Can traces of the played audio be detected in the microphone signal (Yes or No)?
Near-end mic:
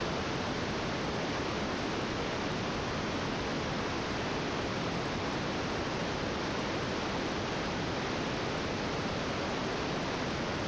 No